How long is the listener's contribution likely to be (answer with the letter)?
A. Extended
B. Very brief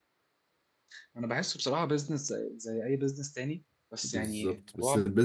A